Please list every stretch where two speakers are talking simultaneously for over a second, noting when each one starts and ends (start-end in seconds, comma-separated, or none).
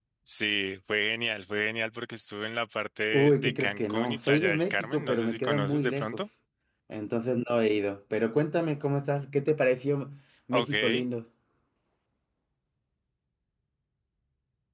3.1-6.2